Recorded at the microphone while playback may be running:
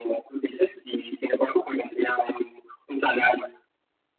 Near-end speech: none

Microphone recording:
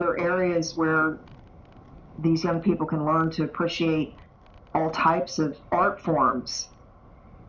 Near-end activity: none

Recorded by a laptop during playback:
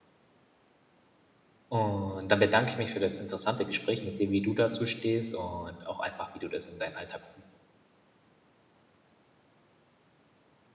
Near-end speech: present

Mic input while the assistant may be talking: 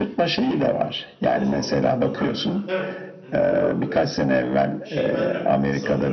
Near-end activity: present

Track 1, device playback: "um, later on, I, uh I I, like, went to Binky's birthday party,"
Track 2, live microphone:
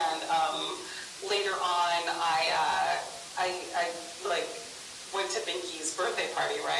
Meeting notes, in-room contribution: none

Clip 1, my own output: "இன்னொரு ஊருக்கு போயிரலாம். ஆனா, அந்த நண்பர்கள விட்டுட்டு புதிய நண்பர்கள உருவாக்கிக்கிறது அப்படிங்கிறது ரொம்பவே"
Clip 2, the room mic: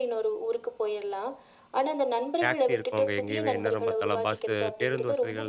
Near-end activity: present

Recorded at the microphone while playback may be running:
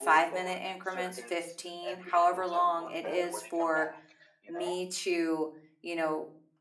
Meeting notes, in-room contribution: present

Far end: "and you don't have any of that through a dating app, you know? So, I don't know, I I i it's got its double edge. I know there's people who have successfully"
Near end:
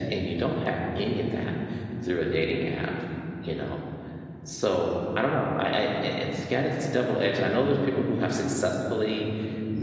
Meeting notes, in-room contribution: none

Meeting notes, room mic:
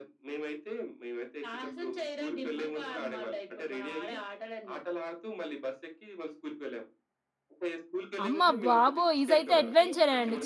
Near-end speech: present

